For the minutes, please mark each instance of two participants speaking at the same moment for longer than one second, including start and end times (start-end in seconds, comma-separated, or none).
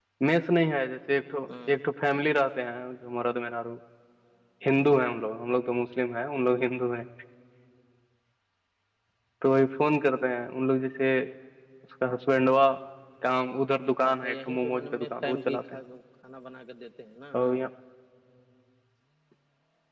14.0-15.6